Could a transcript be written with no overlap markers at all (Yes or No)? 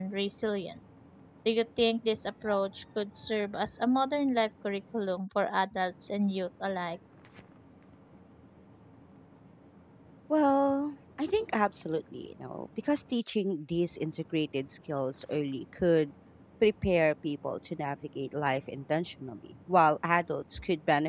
Yes